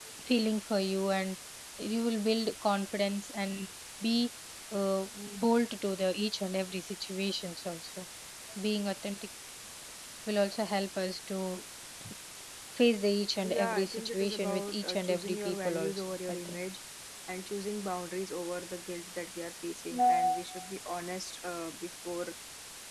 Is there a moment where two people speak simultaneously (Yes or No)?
Yes